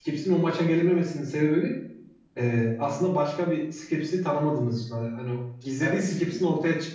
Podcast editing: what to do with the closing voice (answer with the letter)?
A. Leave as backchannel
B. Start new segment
A